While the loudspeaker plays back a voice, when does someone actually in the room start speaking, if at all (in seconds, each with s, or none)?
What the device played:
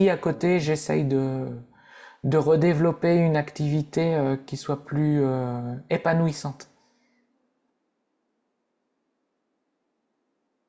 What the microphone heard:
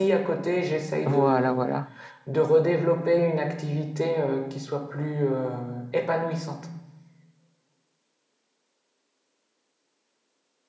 1.1 s